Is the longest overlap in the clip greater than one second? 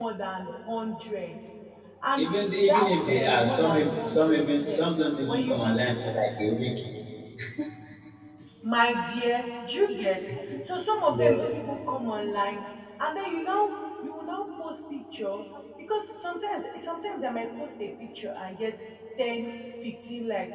Yes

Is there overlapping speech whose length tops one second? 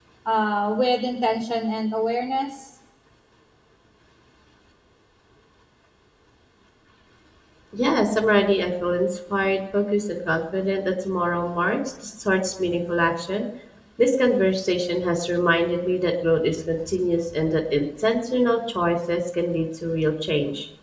No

